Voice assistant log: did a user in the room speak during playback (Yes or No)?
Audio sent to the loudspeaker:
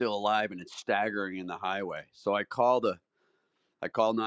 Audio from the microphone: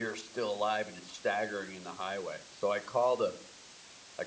No